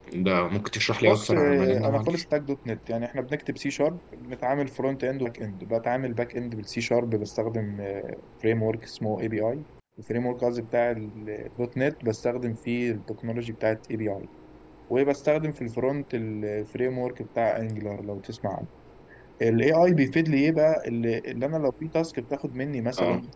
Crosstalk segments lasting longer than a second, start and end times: 1.0-2.2

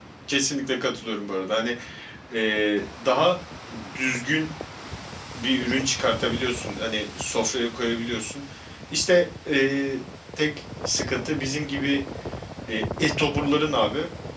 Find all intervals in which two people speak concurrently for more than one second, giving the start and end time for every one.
none

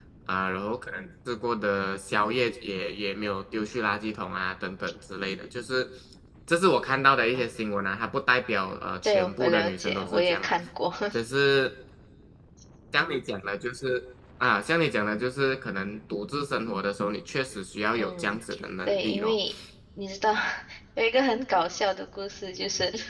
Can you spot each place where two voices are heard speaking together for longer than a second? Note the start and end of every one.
9.0-10.5

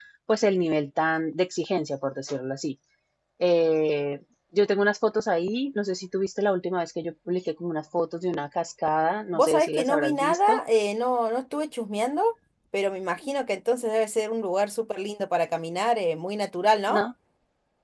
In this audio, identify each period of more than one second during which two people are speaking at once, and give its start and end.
9.3-10.6

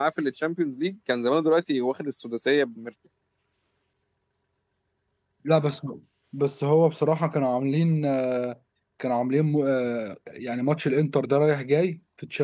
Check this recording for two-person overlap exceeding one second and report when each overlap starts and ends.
none

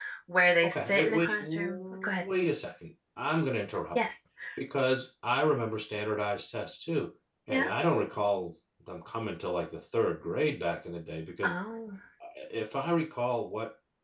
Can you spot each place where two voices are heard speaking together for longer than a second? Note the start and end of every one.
0.6-2.2

